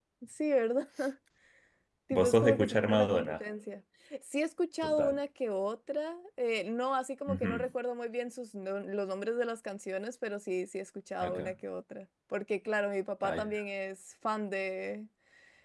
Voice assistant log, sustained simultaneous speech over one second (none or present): present